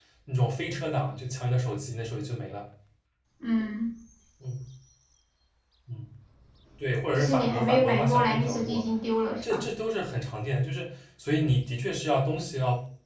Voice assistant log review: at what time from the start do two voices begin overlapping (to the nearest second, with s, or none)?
7 s